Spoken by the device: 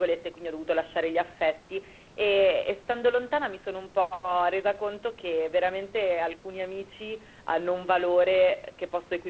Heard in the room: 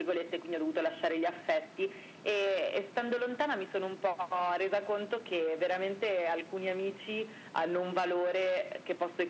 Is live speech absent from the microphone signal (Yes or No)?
Yes